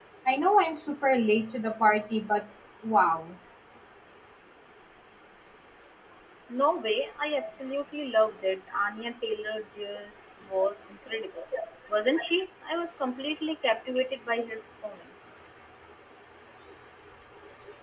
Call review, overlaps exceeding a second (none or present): none